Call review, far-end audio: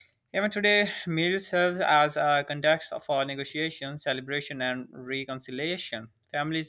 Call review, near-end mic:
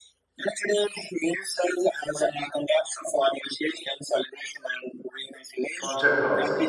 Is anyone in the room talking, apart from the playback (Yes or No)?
Yes